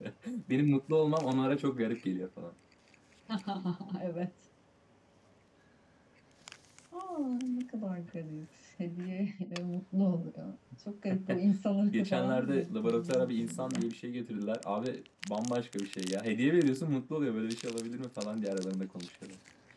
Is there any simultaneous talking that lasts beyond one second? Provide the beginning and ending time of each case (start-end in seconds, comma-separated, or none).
11.9-13.8